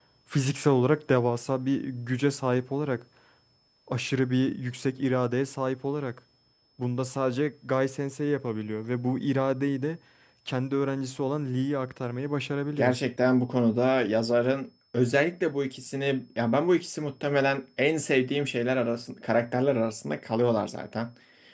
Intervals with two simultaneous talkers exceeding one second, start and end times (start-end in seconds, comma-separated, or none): none